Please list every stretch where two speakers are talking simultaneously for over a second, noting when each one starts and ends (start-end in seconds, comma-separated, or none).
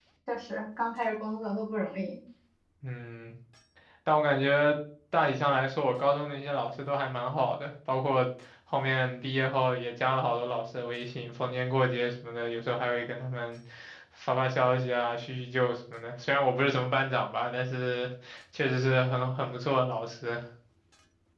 none